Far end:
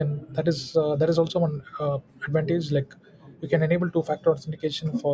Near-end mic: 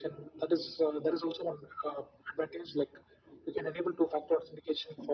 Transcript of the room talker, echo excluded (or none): none